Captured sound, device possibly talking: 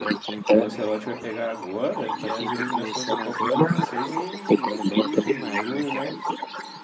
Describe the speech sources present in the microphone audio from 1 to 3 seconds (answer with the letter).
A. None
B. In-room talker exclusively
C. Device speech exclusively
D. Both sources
D